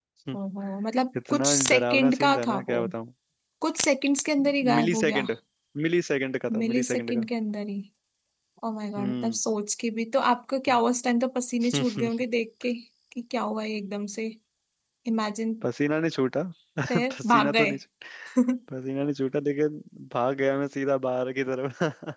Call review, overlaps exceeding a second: present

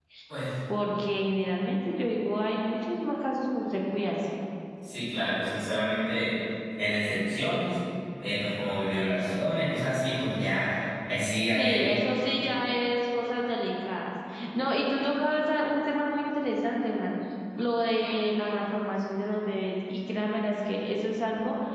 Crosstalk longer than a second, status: none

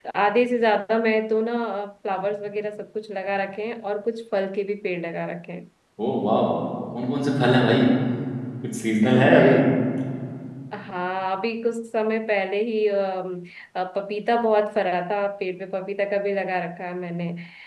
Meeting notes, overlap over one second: none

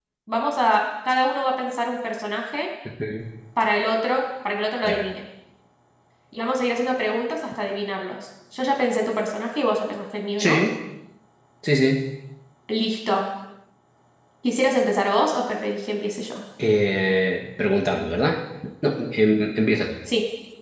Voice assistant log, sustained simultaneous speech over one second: none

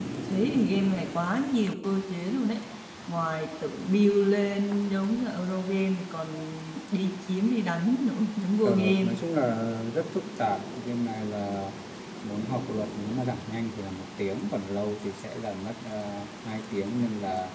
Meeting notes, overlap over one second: none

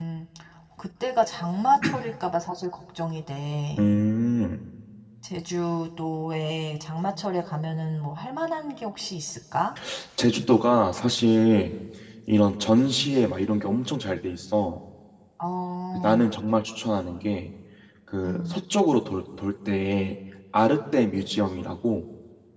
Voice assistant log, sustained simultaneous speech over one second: none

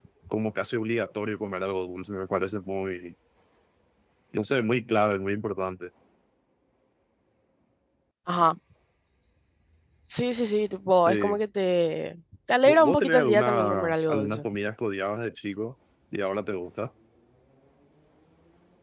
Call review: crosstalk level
present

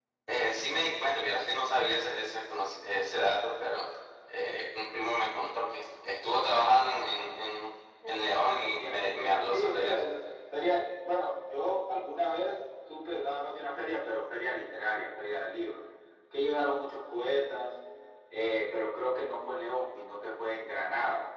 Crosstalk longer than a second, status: present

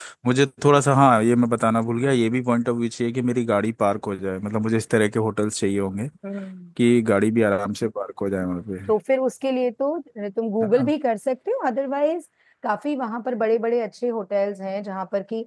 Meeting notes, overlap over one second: none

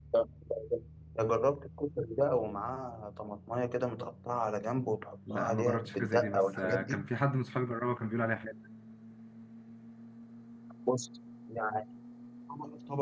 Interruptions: present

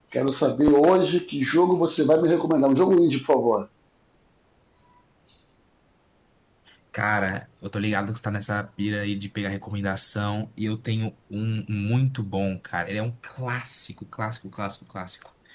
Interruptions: none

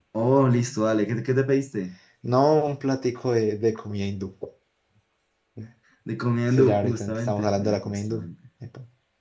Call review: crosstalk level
present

